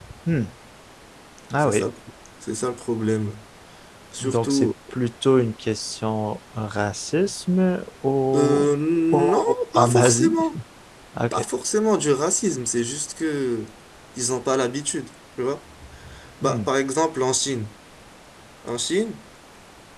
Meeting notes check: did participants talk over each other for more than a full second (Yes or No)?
Yes